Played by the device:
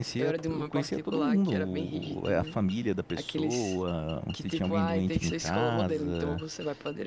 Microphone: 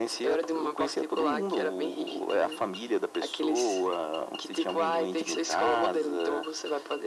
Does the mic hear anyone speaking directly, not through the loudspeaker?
No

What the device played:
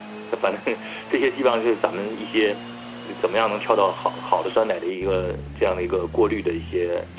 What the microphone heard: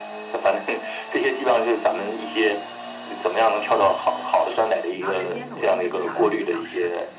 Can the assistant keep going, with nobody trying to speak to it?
No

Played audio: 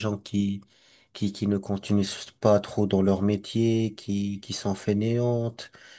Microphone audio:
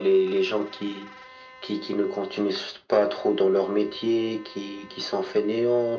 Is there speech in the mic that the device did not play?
No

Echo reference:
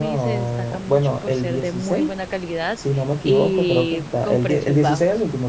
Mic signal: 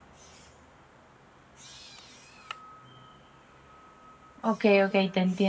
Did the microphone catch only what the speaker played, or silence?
No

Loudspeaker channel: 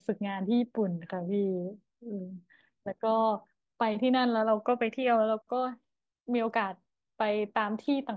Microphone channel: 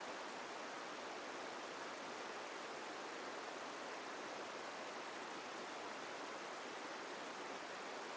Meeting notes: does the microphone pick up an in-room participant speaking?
No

